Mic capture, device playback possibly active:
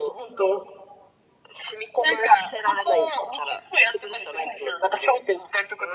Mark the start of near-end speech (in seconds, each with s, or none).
none